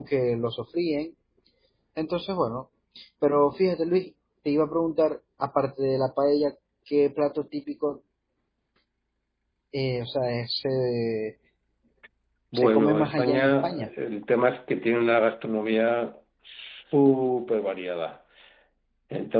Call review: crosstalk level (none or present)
present